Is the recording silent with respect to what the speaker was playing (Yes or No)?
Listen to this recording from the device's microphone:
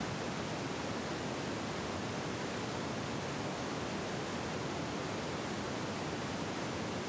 Yes